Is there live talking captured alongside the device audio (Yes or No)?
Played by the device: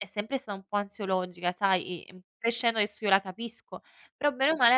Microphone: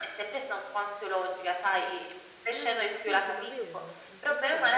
Yes